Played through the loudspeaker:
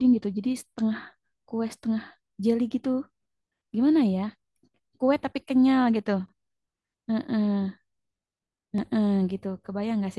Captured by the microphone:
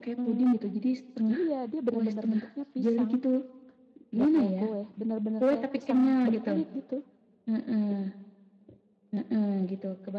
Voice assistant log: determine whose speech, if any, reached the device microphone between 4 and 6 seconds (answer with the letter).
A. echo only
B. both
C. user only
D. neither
B